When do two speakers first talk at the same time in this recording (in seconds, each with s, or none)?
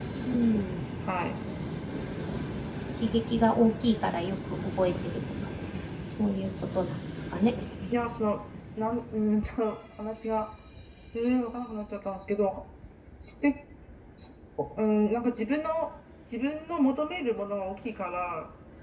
none